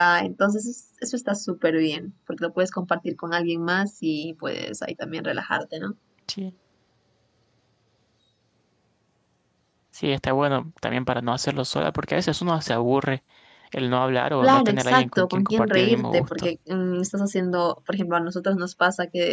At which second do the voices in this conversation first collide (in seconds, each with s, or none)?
14.4 s